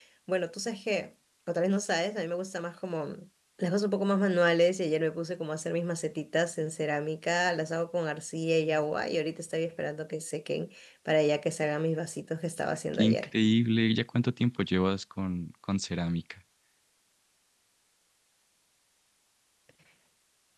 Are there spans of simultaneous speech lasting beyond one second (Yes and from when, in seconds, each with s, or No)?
No